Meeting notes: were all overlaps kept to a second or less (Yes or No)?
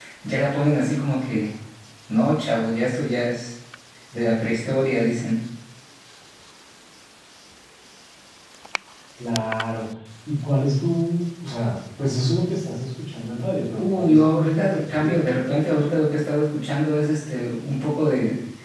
No